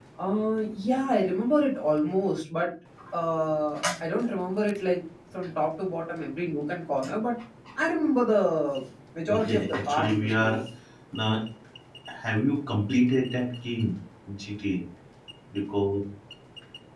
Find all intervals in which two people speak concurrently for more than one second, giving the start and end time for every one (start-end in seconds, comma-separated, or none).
9.3-10.6